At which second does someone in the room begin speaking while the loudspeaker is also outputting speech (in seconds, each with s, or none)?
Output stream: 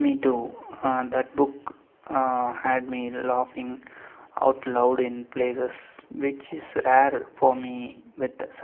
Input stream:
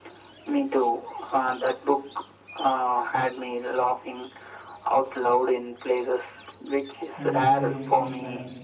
7.2 s